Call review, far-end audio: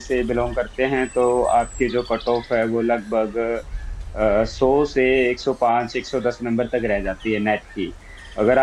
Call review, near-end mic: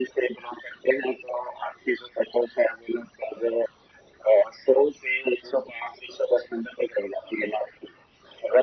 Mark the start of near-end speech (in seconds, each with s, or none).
none